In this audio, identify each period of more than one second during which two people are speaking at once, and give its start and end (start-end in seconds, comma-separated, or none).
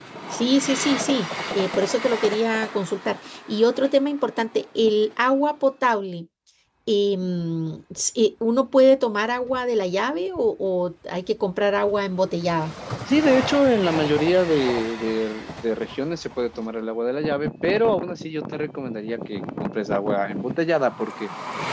none